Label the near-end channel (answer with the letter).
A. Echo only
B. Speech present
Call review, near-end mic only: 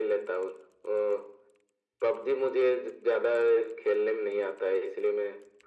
A